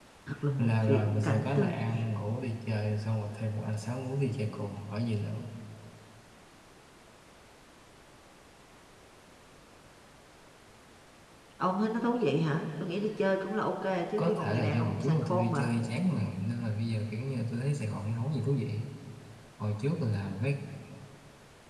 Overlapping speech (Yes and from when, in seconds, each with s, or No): Yes, from 0.6 s